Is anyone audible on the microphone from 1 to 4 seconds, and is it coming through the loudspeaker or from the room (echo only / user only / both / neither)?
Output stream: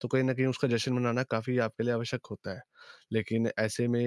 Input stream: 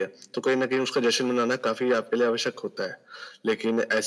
echo only